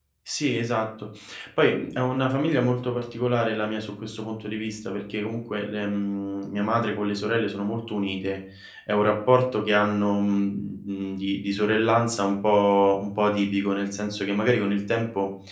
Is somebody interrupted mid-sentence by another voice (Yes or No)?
No